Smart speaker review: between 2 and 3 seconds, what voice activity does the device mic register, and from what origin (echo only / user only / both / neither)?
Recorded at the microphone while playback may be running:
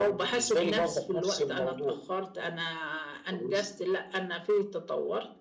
echo only